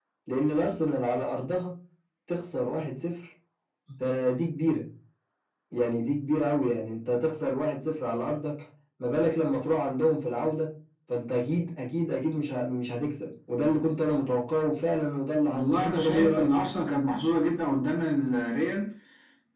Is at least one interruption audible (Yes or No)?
Yes